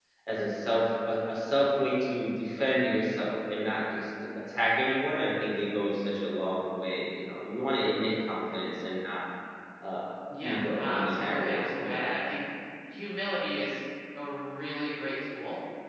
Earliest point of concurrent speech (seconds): 10.4 s

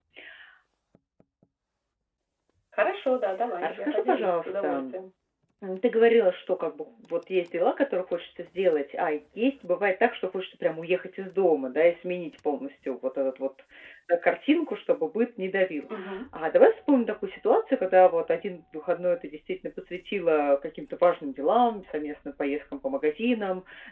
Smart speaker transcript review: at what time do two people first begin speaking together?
3.6 s

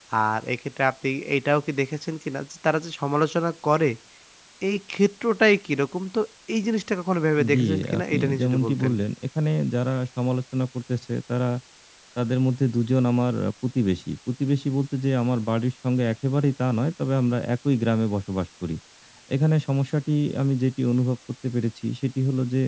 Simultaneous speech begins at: 7.4 s

